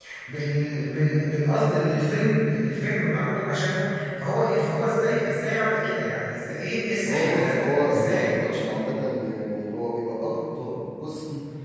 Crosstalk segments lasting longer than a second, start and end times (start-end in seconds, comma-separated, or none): 7.1-8.3